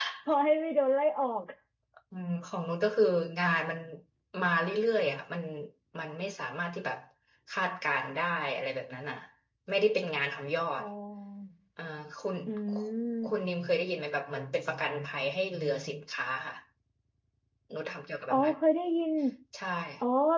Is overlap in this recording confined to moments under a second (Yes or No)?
Yes